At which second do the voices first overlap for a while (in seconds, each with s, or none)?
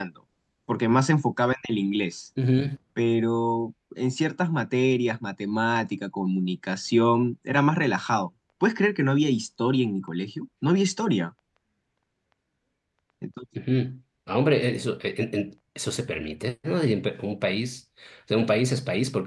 none